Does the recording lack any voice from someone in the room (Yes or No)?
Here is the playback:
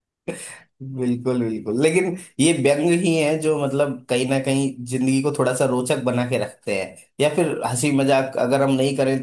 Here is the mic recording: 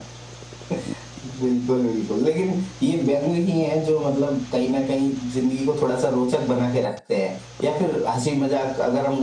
Yes